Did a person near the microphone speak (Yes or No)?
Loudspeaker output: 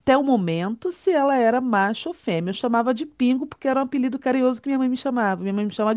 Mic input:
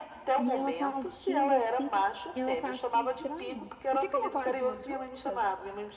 Yes